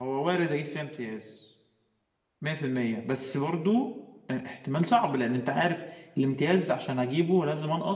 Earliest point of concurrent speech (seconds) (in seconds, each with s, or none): none